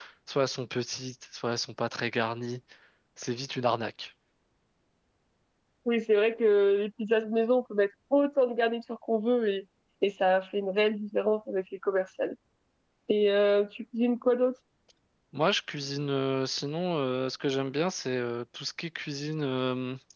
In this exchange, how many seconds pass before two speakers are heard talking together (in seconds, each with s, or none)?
none